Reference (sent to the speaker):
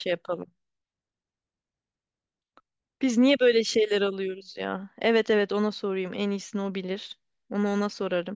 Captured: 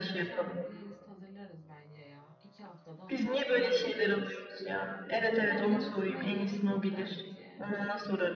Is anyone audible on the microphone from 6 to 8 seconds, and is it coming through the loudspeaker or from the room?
both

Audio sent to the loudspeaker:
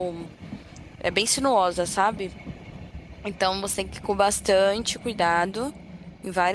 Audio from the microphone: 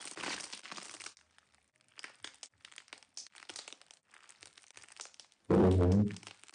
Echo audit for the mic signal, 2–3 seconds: neither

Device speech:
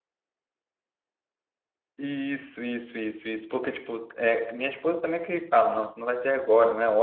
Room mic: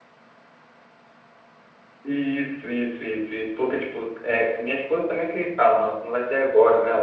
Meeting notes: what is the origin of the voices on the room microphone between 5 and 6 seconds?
echo only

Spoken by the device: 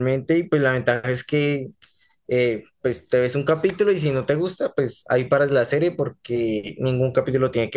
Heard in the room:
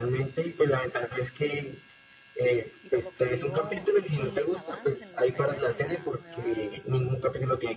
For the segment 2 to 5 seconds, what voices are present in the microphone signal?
both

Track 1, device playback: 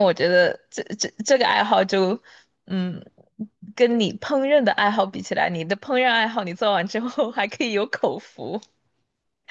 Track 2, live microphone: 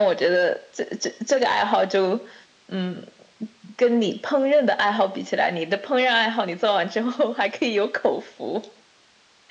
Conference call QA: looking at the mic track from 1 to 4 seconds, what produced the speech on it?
echo only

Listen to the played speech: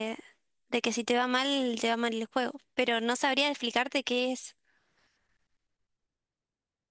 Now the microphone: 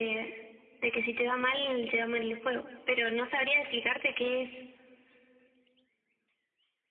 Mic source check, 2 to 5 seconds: echo only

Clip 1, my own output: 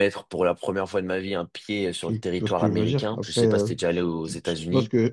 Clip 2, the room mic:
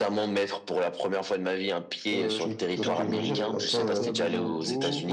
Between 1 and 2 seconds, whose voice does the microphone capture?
echo only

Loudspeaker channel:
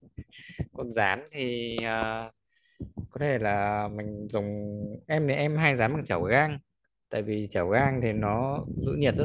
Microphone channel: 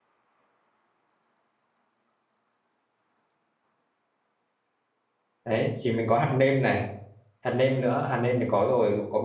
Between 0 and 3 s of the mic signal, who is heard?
neither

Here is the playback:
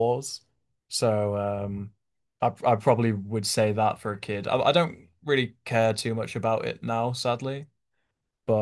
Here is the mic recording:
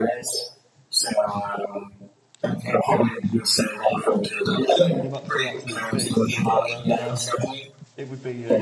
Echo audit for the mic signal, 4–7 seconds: both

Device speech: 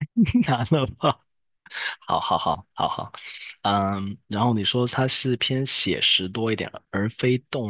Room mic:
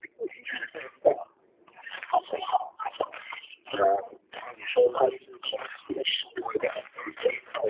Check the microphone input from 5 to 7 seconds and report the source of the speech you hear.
echo only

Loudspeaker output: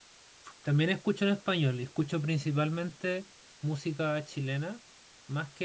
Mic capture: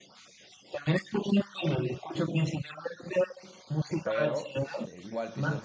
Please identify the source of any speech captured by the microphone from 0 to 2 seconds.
echo only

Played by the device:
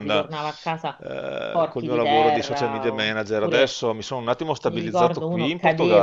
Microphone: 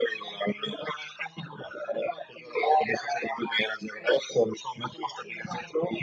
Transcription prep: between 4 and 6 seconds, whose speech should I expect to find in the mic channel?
echo only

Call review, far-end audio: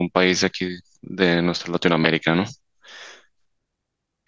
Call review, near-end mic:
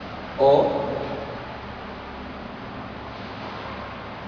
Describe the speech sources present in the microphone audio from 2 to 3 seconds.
neither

